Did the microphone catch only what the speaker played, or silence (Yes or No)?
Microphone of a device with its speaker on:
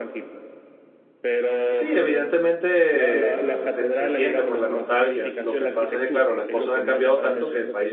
No